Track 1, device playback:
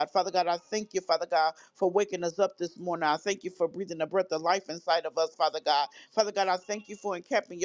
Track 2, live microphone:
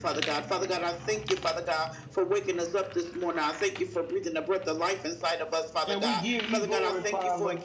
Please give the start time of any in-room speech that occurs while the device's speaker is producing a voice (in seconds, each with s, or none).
5.8 s